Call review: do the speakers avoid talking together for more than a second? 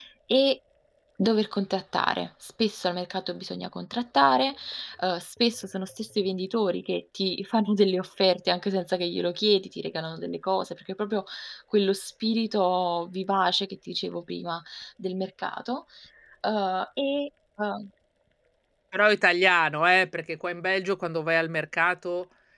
Yes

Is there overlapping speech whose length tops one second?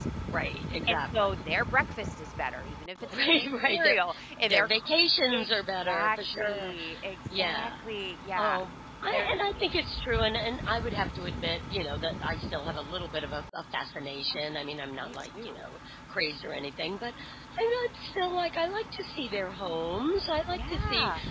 Yes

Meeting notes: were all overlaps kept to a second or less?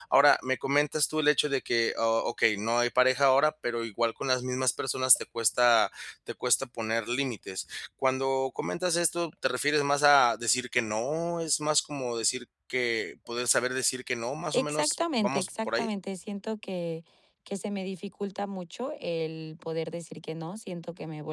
No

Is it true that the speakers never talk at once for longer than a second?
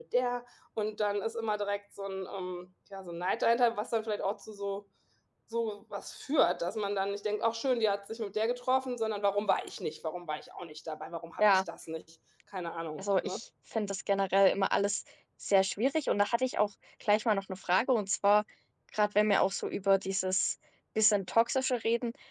Yes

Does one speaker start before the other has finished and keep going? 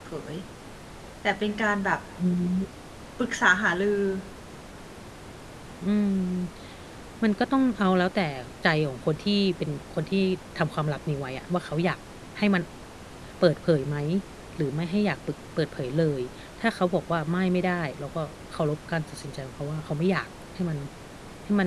No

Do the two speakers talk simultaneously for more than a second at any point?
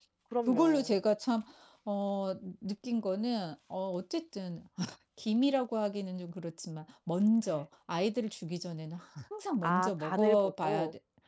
Yes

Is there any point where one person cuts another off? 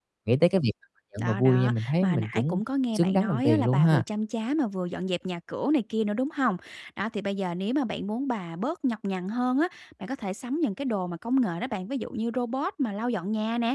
Yes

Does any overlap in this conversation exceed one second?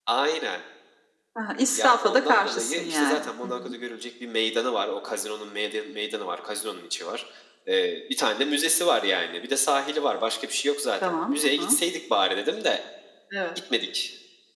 Yes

